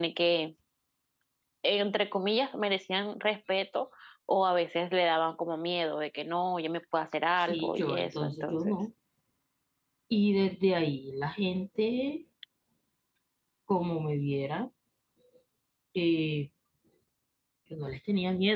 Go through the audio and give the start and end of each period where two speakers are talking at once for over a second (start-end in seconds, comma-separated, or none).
7.4-8.8